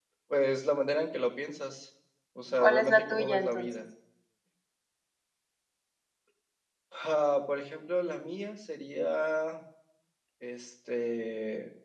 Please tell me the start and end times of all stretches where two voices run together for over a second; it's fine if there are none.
2.5-3.7

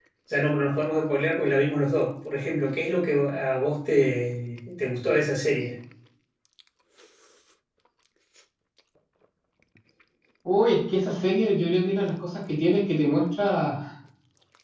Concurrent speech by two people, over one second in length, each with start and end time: none

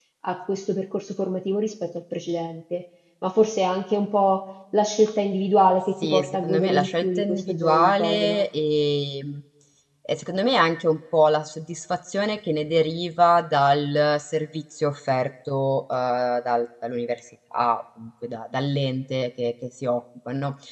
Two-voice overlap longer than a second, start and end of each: 6.0-8.4

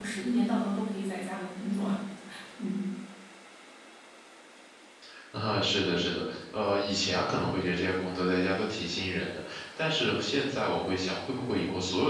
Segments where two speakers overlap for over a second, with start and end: none

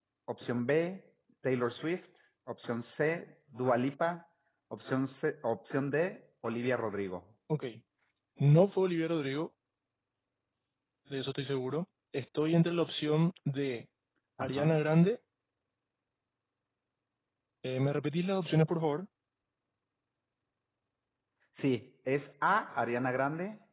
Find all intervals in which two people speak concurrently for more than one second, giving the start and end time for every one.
none

